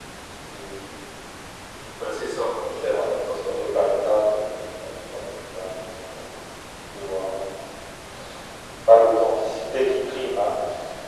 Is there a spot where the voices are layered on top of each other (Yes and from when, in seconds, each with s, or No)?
Yes, from 2.9 s